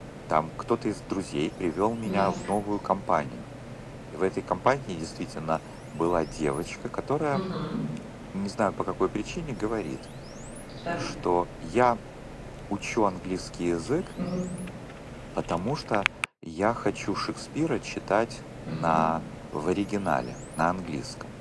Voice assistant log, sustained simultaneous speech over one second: none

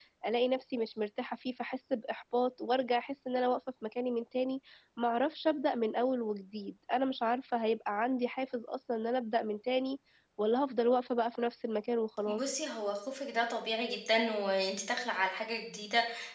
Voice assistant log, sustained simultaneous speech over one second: none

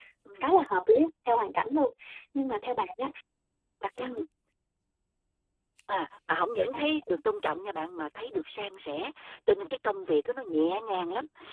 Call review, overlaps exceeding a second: none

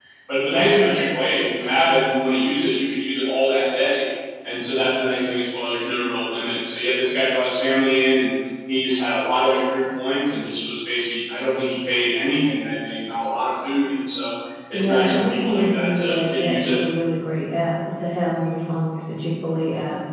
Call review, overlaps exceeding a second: present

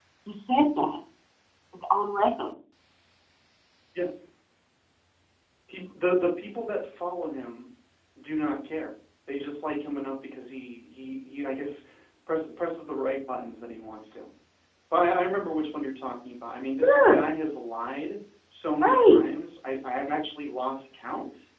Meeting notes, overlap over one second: none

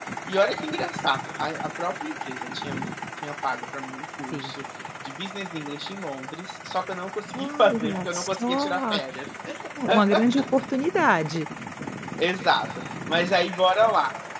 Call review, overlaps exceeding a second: present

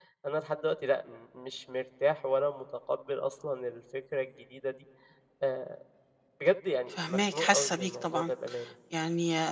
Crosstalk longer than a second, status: present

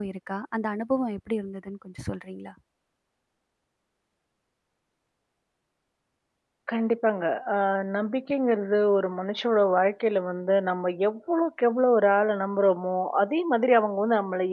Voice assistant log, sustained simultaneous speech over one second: none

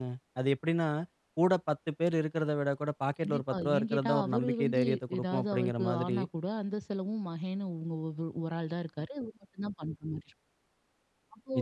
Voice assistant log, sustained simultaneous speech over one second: present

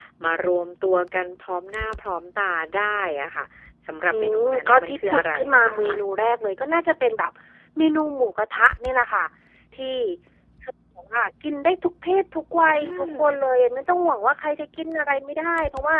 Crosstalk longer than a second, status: present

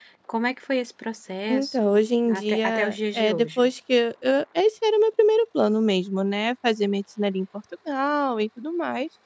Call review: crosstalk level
present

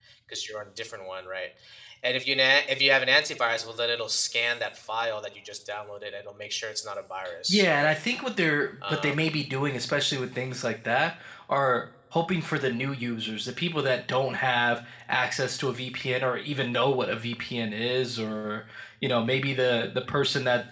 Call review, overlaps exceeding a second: none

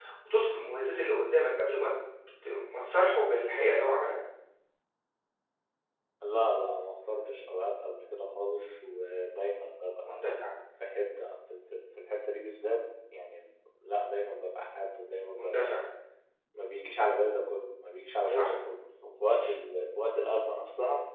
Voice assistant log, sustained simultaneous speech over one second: none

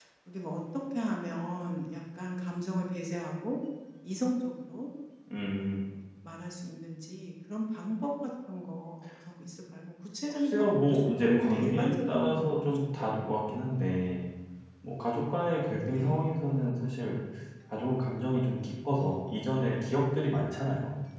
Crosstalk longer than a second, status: present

